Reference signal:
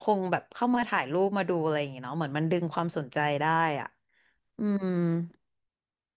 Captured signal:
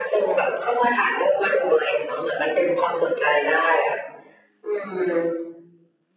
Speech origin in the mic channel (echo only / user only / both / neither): echo only